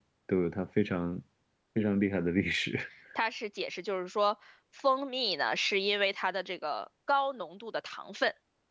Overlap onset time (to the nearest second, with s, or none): none